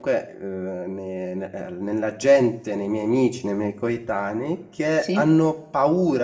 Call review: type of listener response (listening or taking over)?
listening